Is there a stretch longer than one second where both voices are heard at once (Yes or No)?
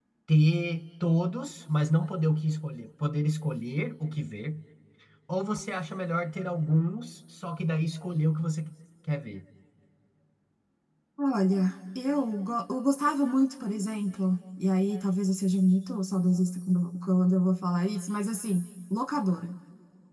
No